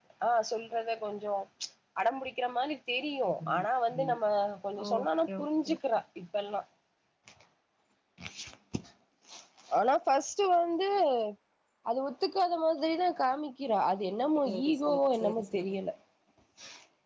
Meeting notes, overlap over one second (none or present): present